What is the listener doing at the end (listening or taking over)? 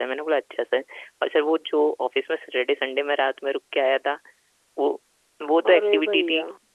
listening